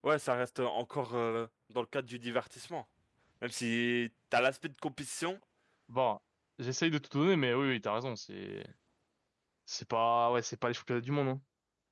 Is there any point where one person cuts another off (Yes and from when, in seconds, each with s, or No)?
No